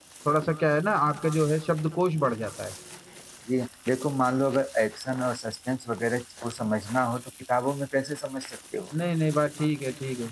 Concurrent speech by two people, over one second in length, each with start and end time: none

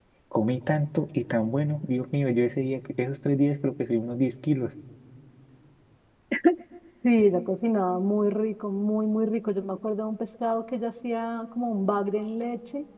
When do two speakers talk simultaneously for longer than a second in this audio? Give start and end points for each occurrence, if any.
none

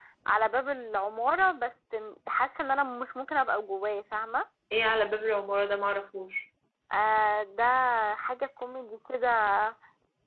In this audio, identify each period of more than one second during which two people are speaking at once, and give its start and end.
none

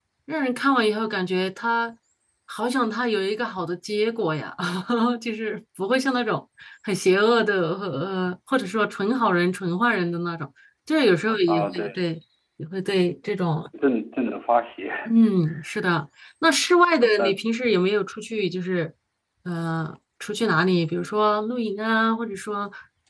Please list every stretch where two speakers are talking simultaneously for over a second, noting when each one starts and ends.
none

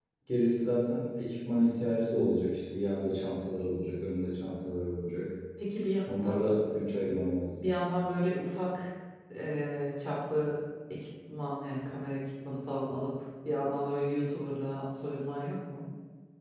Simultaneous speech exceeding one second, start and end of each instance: none

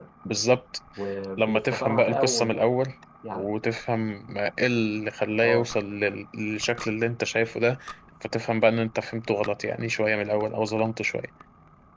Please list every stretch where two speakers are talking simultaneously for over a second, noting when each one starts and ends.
1.4-2.7

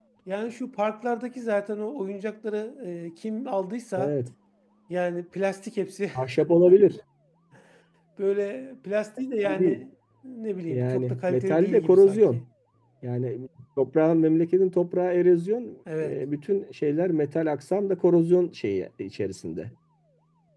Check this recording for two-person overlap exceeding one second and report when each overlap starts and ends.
10.7-12.4

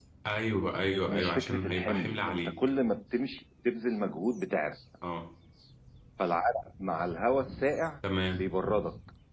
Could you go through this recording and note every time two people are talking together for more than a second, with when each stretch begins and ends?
1.1-2.5

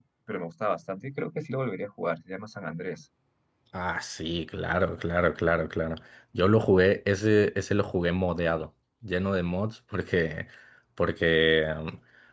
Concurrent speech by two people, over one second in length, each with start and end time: none

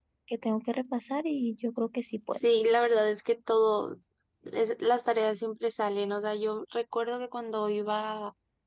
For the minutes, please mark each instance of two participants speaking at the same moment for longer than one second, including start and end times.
none

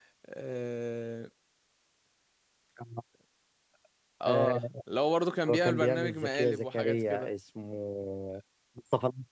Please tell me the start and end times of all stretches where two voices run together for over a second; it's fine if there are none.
5.5-7.3

